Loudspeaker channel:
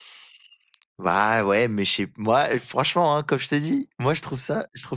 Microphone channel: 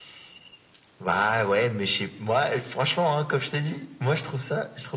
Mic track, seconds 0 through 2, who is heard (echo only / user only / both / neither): echo only